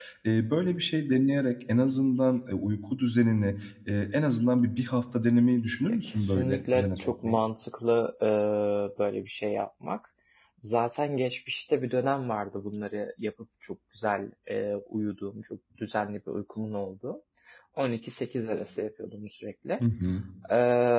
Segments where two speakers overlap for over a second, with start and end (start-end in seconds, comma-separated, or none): 5.9-7.4